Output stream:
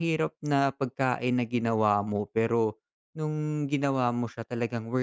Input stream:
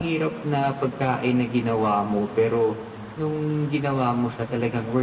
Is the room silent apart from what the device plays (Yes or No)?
Yes